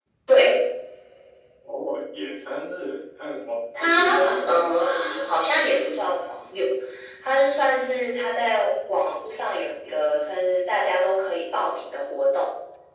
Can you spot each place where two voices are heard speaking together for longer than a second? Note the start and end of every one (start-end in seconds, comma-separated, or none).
3.8-6.3